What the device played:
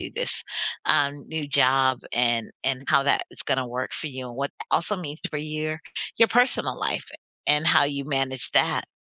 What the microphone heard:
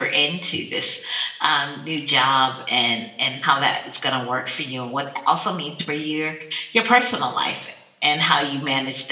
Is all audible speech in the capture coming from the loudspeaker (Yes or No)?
Yes